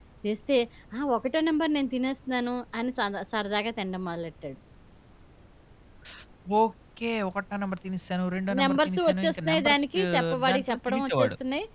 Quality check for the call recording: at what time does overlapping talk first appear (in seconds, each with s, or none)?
8.5 s